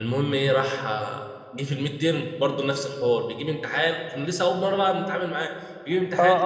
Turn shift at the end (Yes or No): Yes